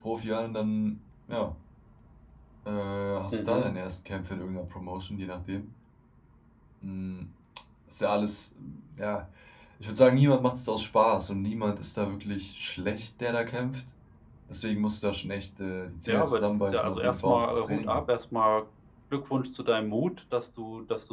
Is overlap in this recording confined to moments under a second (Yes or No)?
No